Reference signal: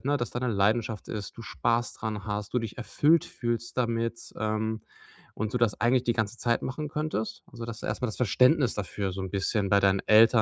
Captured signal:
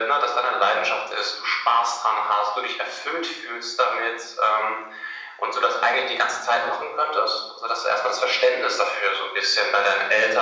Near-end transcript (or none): none